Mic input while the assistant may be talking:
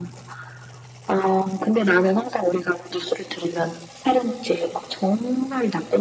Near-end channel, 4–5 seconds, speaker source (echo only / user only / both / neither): echo only